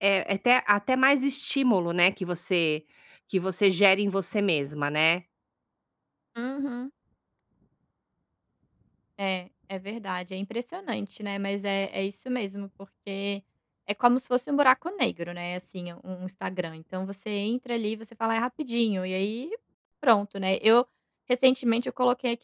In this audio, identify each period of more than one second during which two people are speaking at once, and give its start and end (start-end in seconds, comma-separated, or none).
none